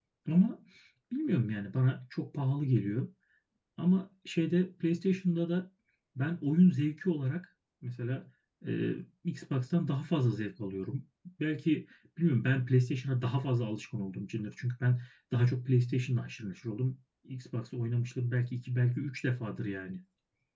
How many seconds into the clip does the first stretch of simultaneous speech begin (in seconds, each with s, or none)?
none